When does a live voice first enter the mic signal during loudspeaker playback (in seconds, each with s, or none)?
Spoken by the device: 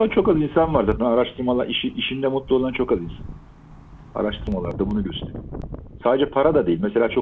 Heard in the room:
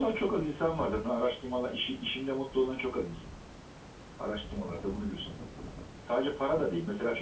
none